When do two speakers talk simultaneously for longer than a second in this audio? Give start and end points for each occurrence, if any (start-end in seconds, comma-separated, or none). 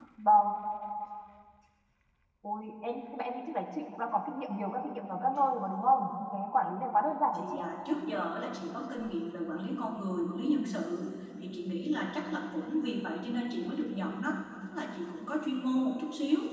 none